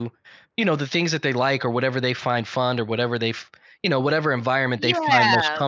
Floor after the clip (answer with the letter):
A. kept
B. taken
A